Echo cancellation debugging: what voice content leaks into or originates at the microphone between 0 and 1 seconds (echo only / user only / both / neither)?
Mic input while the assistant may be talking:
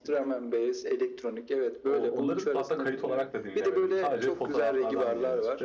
echo only